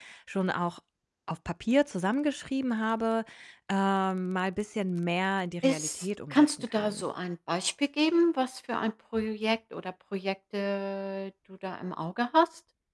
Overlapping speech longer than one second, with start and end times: 5.6-7.1

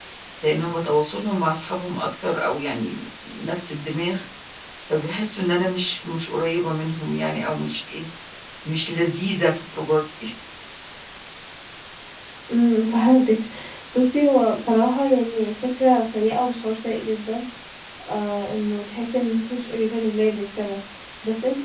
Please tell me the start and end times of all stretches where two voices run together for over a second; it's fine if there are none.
none

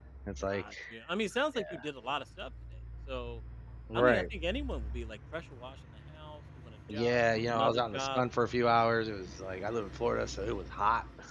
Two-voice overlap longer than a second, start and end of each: 6.9-8.2

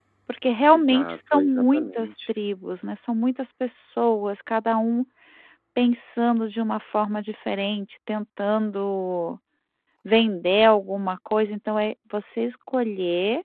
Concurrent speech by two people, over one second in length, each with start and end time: 0.7-2.2

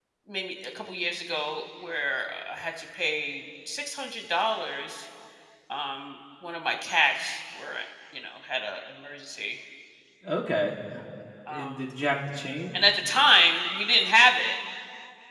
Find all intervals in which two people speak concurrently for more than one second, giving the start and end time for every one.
none

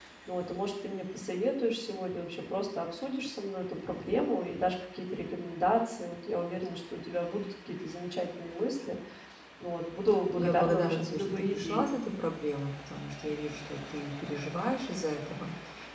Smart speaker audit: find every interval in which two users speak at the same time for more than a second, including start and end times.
10.4-11.9

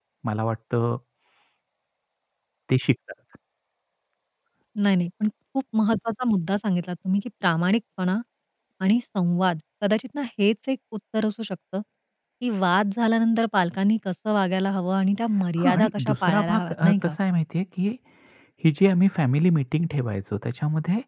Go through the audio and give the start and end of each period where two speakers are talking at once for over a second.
15.6-17.1

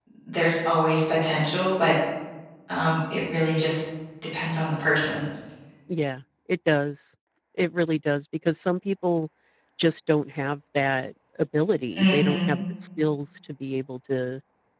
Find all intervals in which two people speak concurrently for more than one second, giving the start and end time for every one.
none

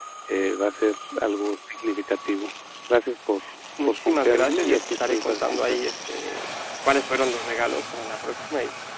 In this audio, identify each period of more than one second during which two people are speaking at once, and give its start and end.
3.8-5.8

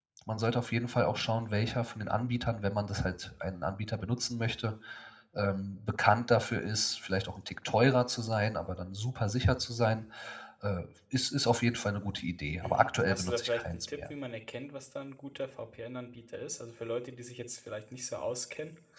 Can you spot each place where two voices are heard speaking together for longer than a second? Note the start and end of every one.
12.6-14.1

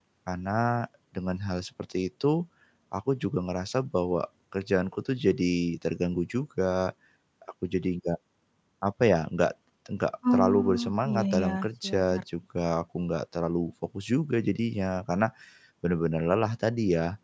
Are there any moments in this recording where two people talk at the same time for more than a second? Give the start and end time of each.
10.3-12.2

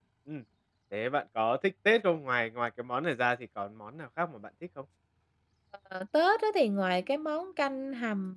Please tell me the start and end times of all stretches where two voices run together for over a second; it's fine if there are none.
none

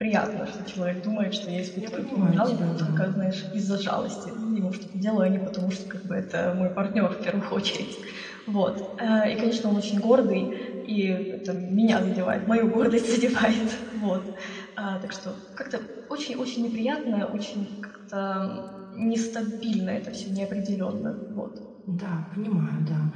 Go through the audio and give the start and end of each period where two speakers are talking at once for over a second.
1.8-3.0

